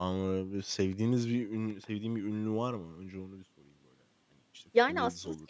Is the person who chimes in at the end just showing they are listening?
No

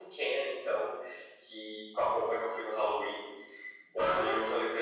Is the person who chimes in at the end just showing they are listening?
Yes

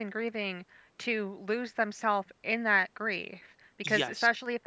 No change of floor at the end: Yes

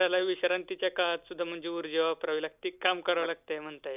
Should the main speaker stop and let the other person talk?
Yes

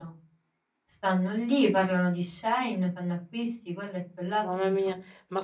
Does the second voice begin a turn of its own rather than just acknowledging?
Yes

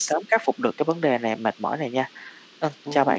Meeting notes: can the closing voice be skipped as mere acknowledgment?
No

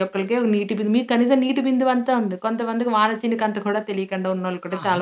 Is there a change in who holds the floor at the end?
Yes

